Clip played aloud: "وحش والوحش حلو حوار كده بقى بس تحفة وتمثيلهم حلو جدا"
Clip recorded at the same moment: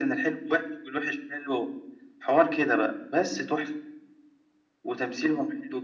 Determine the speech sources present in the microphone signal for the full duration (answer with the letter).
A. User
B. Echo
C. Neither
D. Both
B